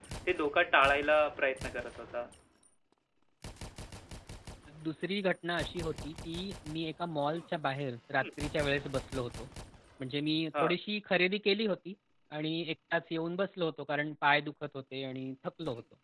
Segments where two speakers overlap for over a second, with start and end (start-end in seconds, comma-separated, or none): none